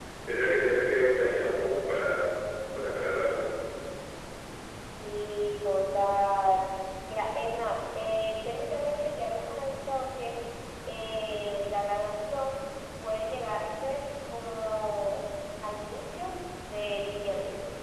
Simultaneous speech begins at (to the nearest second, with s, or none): none